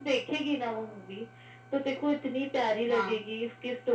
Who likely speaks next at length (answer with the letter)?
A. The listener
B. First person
B